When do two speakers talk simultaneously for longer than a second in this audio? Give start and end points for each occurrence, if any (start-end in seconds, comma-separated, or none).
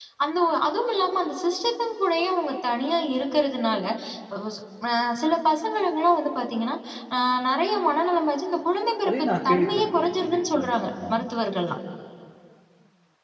9.1-11.3